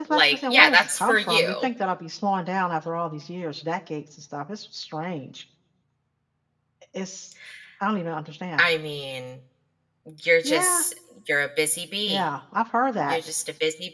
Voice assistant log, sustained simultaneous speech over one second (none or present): present